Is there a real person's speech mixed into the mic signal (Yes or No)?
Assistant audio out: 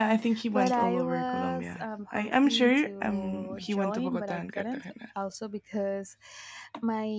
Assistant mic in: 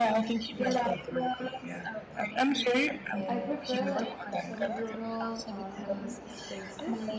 Yes